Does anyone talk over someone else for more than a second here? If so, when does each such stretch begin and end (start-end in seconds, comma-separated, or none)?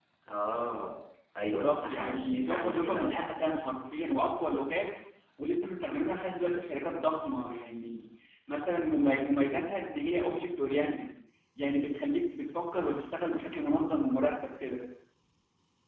1.4-3.2